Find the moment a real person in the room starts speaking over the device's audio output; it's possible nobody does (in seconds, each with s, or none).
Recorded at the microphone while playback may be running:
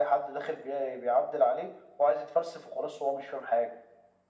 none